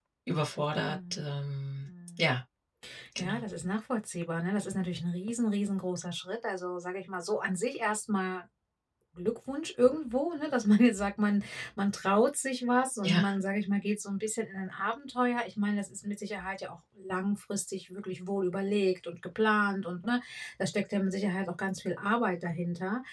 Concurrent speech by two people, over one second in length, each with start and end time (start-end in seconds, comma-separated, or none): none